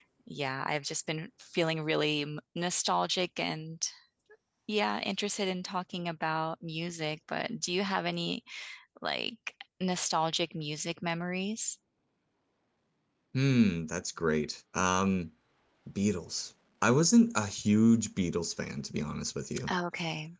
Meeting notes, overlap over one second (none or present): none